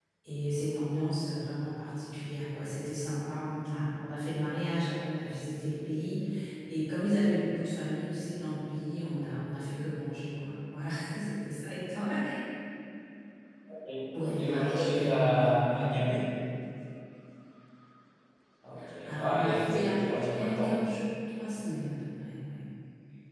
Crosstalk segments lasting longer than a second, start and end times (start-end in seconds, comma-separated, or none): 14.4-16.1, 19.1-20.8